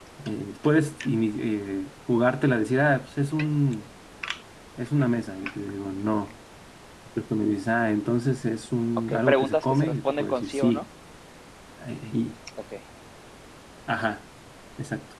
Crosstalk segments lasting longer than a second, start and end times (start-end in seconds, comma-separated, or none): 9.1-10.8